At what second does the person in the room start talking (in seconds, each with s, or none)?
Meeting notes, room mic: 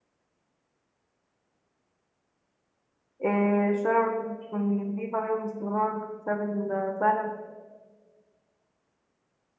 3.2 s